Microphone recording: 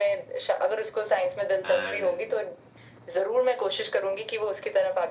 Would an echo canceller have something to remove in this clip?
Yes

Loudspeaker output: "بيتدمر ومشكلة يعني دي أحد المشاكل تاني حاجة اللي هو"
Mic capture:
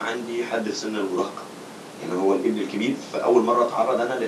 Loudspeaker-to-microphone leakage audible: No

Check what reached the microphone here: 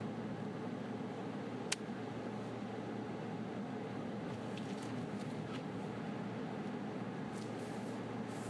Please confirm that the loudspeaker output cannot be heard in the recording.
Yes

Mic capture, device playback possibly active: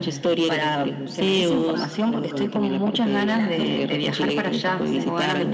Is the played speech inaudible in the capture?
No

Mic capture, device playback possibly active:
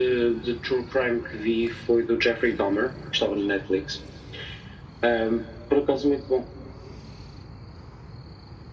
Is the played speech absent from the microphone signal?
No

